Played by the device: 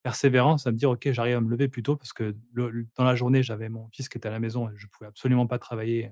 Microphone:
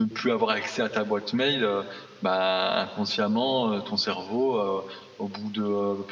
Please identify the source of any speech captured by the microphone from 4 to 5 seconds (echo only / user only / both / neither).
user only